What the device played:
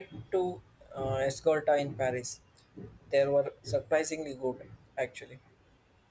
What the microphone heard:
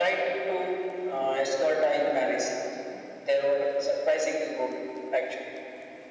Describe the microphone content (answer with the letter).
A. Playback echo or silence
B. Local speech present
A